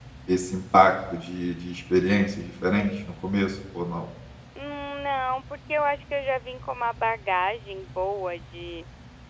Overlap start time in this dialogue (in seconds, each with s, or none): none